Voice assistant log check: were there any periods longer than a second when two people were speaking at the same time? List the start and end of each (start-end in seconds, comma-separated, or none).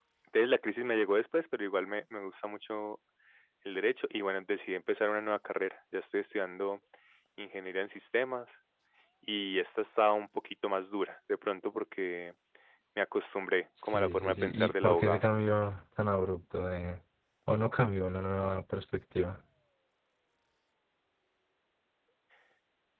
13.8-15.2